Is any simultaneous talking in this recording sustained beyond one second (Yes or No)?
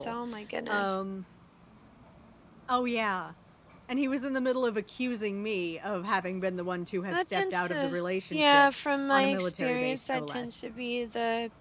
Yes